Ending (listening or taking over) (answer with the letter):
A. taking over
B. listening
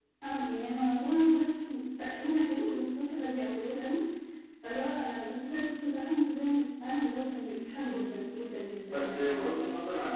A